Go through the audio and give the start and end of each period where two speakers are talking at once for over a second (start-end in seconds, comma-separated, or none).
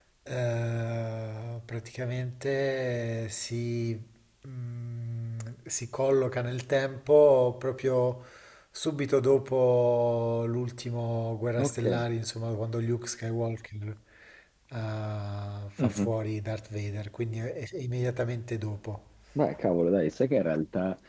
none